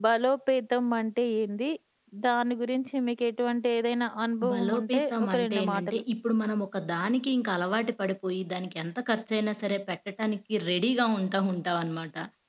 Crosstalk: present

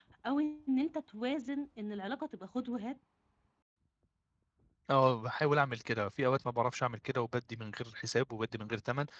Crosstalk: none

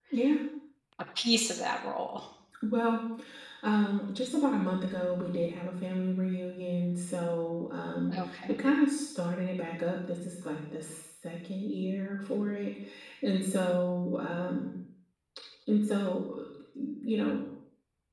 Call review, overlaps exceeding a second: none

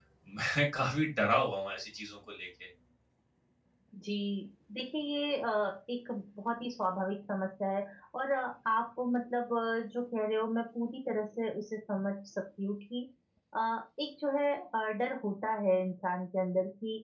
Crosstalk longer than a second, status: none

